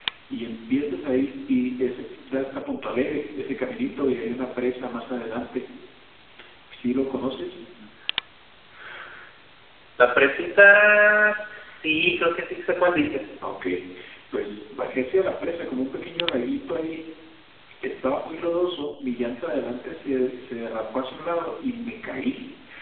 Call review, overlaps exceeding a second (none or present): none